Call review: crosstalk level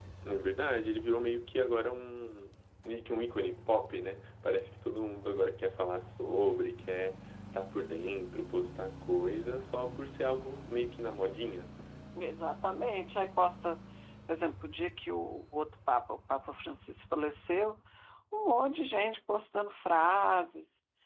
none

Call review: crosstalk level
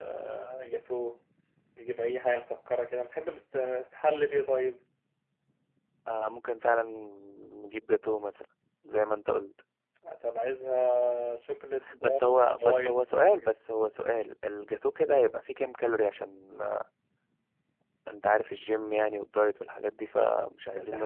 present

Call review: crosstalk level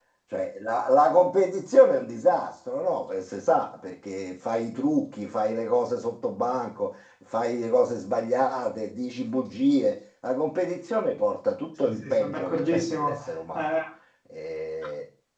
present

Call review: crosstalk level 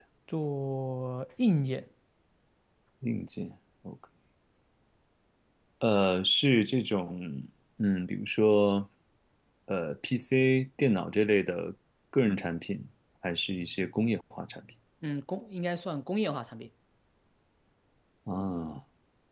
none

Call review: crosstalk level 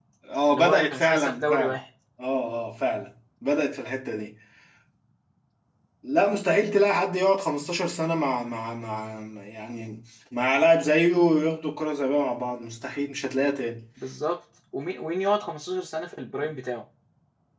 present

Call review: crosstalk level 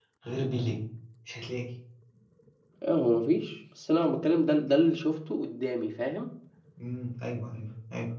none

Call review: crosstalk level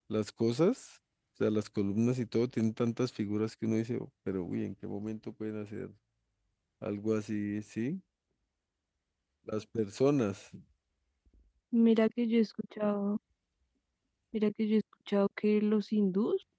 none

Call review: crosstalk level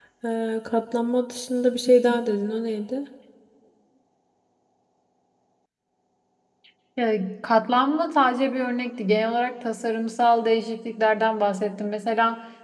none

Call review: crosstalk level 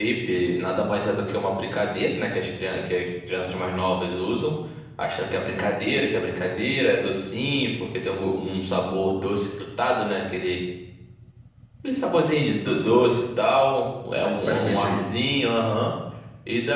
present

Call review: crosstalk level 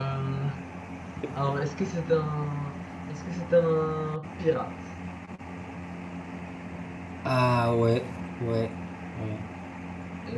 none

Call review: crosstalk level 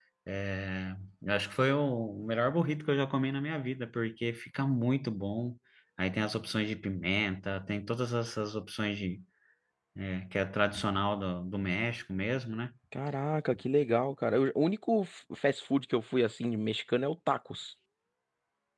none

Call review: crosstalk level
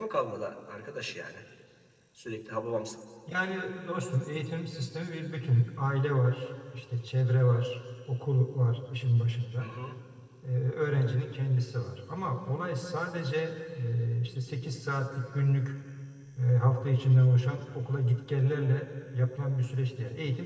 none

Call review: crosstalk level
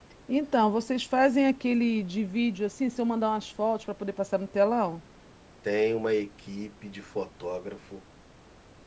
none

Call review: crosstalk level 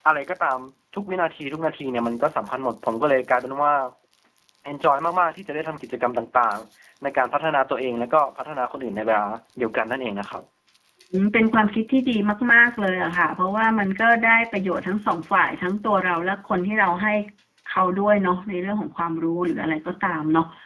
none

